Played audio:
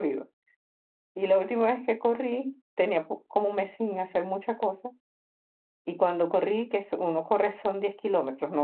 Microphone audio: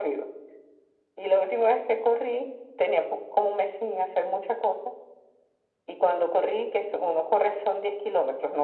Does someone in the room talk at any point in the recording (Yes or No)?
No